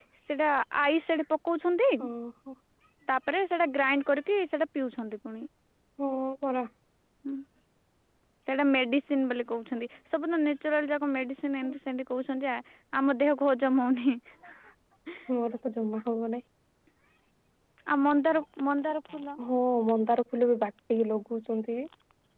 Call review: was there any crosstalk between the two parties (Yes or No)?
No